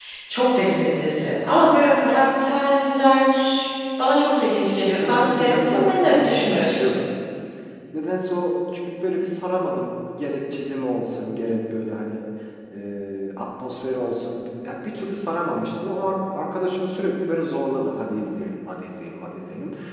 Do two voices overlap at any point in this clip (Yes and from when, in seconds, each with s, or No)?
Yes, from 5.0 s